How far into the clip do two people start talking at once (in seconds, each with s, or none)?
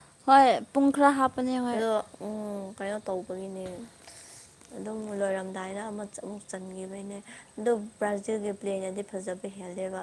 none